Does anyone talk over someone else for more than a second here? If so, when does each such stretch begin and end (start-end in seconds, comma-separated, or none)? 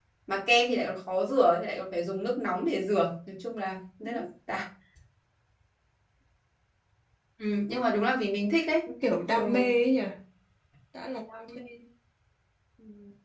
none